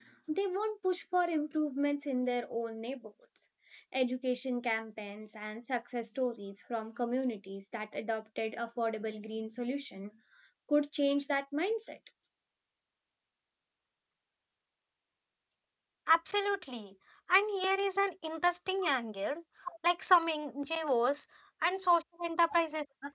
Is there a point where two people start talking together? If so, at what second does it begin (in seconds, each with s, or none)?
none